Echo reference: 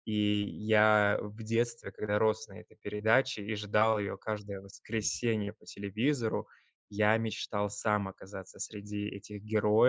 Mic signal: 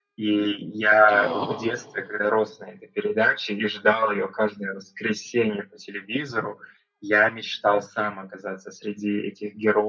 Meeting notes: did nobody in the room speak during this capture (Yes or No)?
No